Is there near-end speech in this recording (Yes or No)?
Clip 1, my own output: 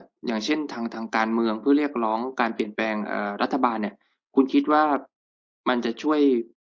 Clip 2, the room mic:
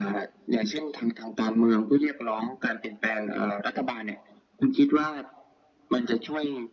No